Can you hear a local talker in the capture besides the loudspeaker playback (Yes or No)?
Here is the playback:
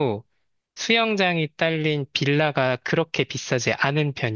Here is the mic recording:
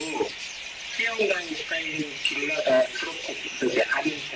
No